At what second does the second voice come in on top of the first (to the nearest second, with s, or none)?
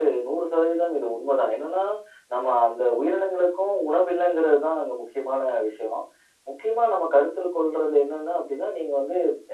none